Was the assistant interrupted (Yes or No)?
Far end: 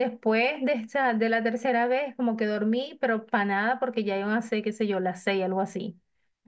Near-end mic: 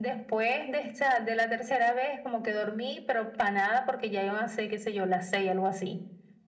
No